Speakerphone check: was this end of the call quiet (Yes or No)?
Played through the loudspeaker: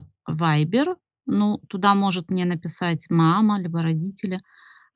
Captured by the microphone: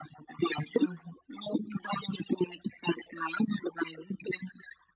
No